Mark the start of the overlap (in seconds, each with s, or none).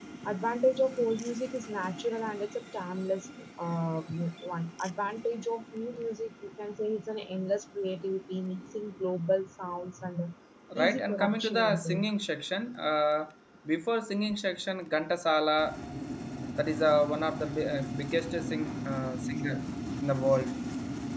10.8 s